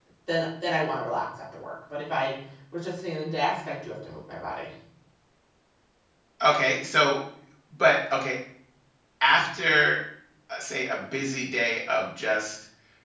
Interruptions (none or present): none